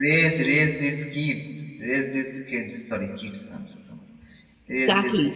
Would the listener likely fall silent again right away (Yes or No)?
No